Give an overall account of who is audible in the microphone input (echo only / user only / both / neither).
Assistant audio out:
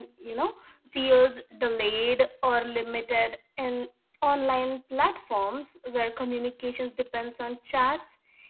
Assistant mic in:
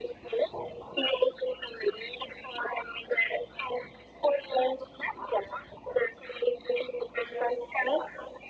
echo only